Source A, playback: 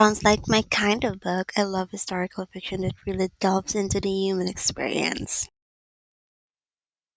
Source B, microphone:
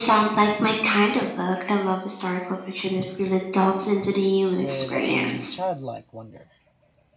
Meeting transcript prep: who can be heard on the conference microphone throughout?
both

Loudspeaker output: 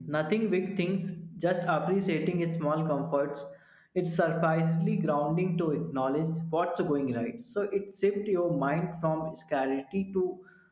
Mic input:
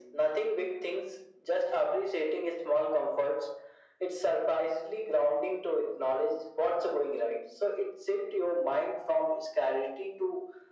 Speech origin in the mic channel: echo only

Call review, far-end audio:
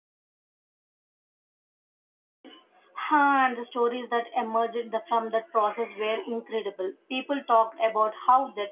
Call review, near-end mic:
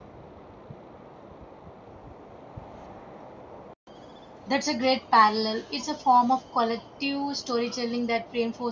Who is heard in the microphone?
user only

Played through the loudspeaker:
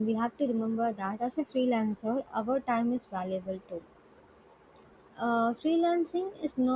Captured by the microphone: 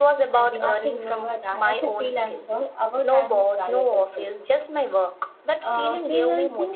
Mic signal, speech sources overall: both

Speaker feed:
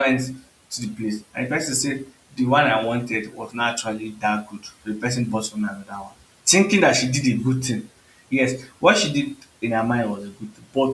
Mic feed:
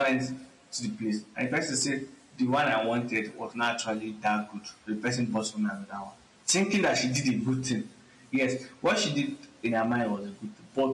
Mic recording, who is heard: echo only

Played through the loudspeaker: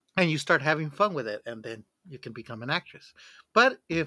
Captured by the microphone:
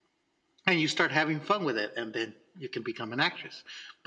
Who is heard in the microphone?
echo only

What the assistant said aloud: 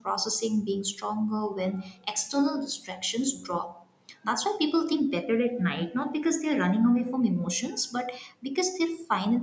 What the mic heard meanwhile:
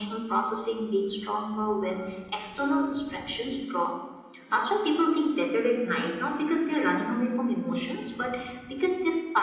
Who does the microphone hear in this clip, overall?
echo only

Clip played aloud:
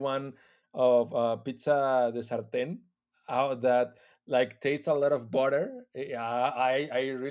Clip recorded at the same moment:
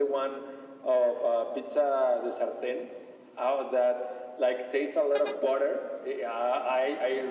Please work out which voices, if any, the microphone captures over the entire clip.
echo only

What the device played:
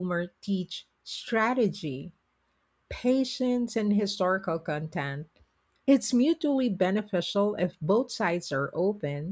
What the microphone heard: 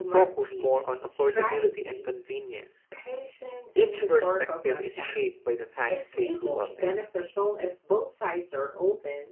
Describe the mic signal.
both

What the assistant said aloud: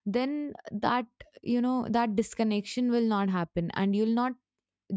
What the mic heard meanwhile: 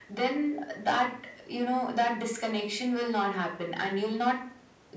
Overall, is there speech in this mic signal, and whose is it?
echo only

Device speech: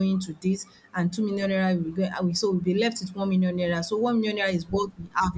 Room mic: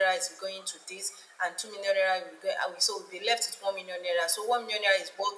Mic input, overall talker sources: echo only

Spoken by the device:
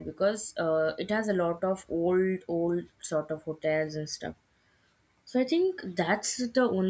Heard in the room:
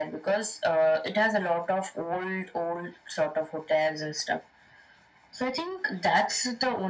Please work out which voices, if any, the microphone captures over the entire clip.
echo only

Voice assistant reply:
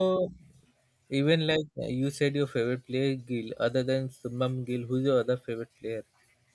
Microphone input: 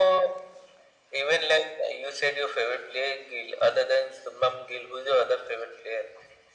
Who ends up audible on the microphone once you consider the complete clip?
echo only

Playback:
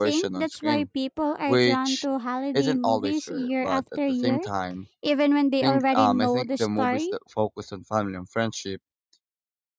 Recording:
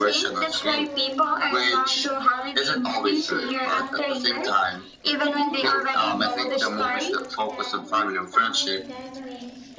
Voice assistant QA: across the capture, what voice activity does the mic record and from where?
both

